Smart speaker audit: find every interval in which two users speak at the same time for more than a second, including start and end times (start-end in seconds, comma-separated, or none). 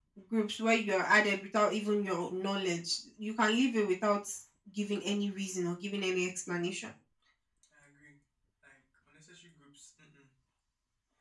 none